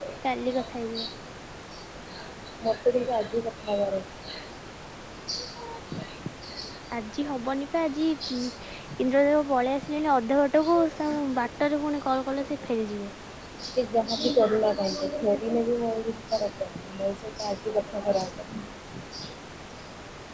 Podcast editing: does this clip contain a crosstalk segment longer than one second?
No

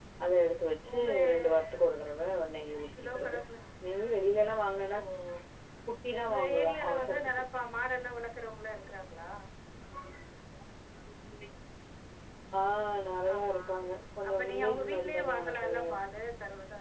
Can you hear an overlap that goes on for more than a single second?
Yes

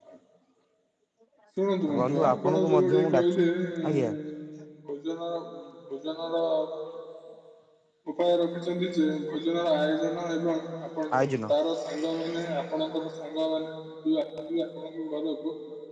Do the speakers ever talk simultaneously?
Yes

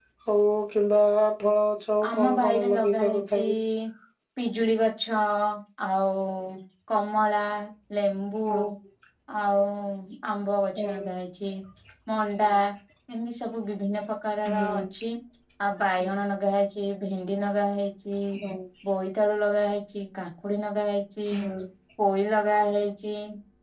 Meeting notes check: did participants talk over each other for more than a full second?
Yes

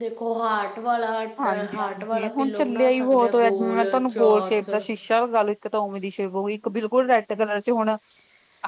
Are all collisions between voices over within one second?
No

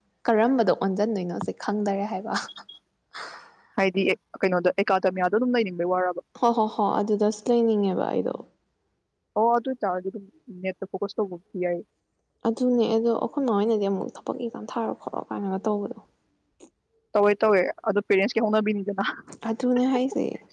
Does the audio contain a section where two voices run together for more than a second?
No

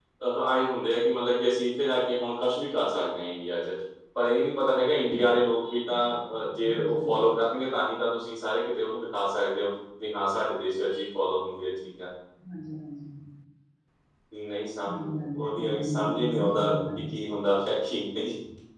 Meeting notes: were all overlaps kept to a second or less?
No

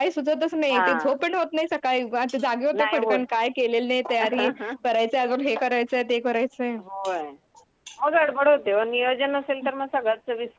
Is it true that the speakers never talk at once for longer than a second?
Yes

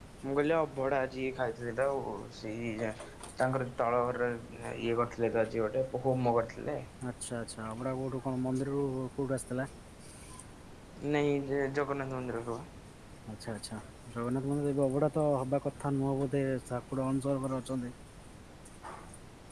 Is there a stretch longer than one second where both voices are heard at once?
No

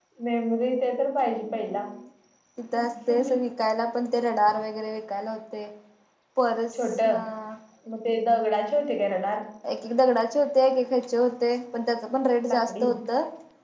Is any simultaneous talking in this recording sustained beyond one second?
No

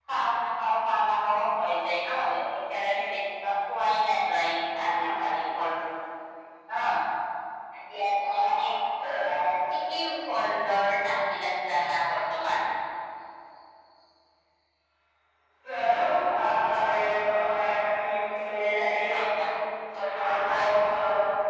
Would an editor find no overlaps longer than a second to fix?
Yes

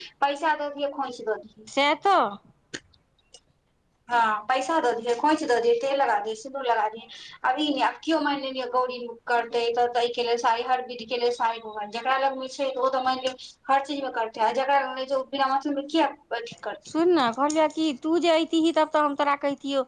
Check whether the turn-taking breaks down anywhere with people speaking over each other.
No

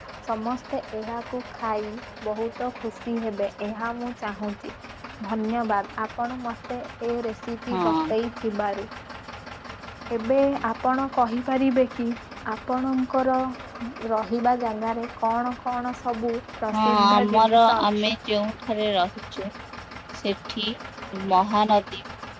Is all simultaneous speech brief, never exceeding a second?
No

